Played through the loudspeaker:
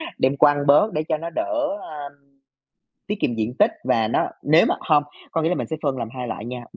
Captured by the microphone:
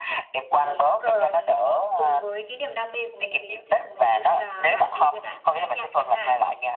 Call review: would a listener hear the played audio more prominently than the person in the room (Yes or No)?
Yes